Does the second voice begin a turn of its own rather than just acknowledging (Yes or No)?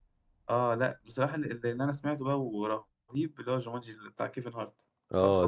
Yes